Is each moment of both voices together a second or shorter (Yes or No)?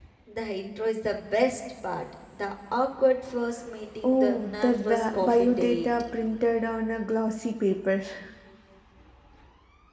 No